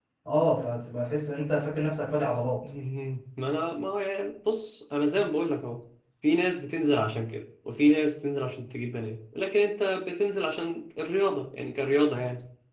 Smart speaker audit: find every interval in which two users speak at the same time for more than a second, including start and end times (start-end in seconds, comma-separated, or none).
none